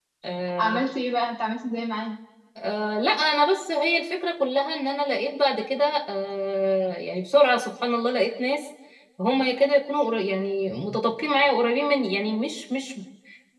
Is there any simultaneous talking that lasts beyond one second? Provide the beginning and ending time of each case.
none

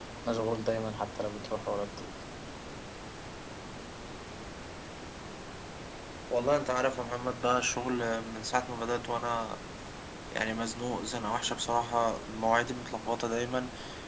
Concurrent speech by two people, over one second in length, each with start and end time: none

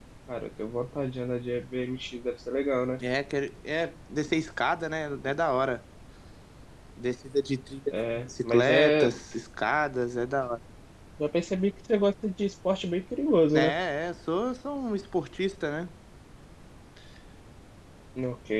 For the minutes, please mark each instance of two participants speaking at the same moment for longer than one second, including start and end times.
7.9-9.1

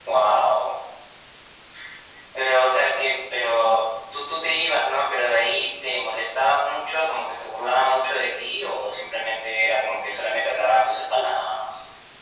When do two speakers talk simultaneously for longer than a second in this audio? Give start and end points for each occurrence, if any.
none

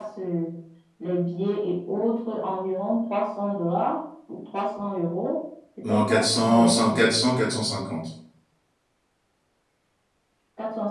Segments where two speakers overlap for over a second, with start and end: 5.8-7.1

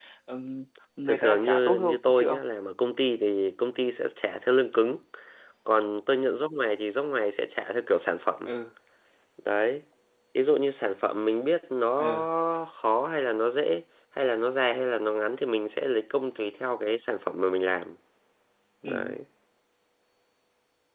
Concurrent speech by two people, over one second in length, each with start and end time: 1.1-2.4

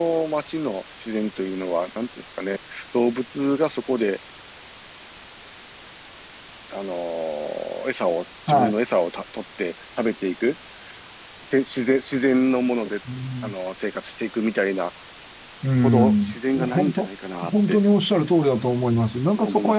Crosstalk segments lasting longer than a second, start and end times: 15.8-17.1

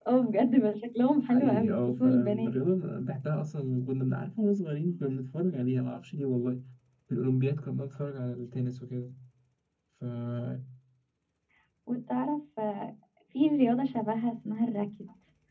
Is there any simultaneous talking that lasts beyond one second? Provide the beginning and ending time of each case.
1.2-2.5

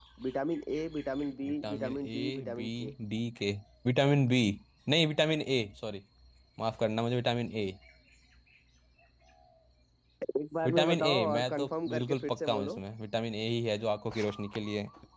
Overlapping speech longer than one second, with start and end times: 1.4-2.7, 10.7-12.8

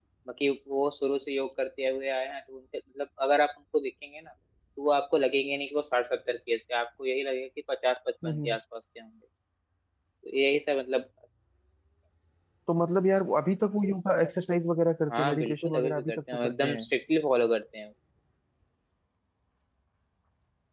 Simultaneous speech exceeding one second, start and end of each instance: 15.1-16.9

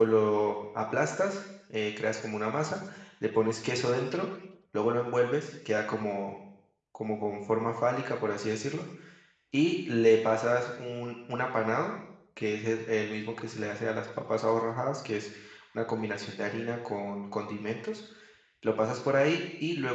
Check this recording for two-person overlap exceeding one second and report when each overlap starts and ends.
none

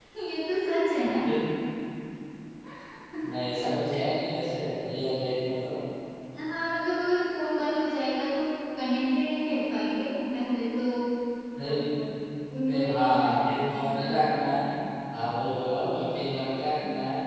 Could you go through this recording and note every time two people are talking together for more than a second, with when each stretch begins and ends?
12.7-14.3

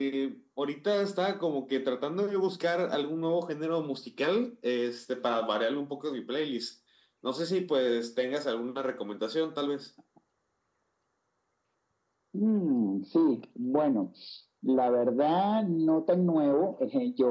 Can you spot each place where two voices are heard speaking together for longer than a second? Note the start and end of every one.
none

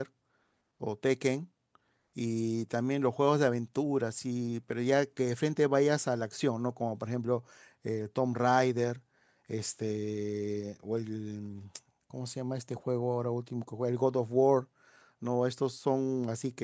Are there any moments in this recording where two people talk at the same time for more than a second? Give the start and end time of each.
none

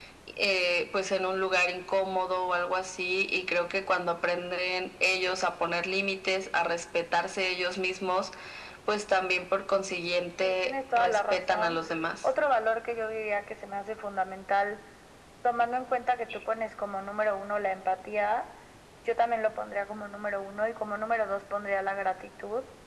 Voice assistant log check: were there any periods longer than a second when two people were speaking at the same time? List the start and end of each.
10.4-11.8

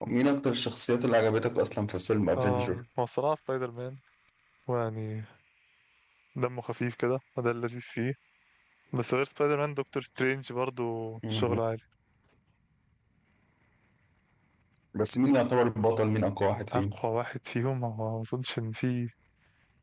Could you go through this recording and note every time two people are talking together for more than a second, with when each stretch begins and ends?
none

